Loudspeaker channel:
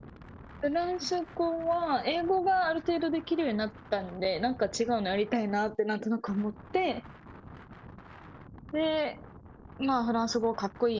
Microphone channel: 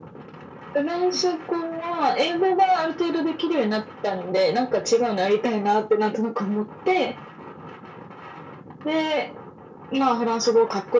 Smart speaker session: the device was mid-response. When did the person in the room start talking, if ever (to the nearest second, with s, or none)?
none